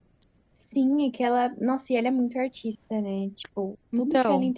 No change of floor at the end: Yes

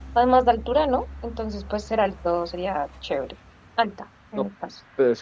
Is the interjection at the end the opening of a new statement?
Yes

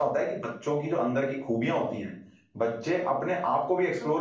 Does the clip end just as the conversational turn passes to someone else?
No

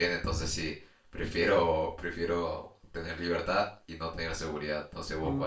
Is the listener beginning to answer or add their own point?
Yes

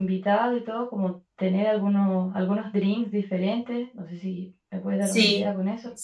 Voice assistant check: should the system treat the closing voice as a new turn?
Yes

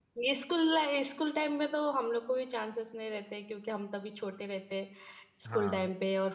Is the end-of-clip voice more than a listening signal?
No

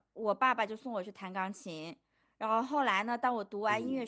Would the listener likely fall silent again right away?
Yes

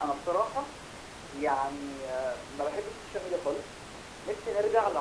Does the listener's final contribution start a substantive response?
No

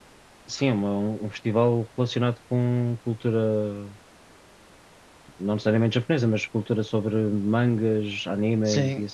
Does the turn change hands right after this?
Yes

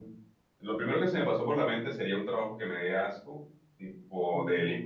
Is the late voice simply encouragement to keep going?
Yes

